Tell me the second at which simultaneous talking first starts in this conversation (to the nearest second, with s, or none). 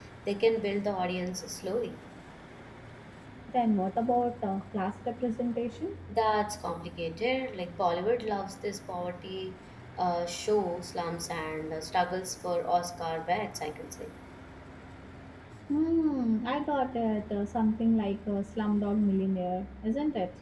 none